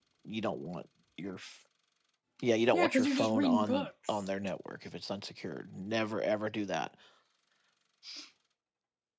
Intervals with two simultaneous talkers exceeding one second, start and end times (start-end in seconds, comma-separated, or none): 2.7-4.3